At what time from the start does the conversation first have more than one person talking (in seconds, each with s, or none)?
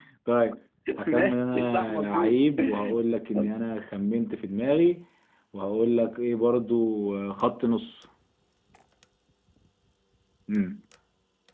1.1 s